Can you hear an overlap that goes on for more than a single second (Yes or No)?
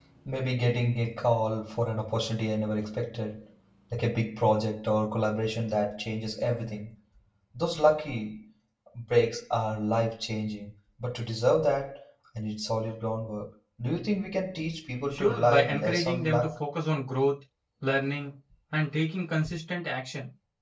Yes